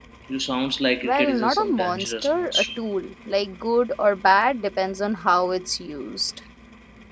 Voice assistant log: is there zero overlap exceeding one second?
No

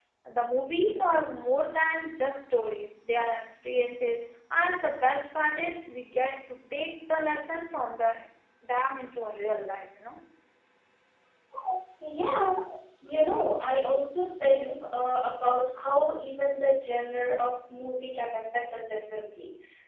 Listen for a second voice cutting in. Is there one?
No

